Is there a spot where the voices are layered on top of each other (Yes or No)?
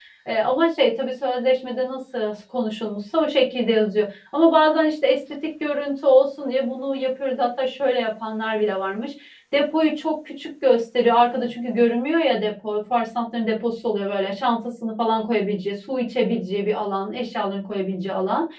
No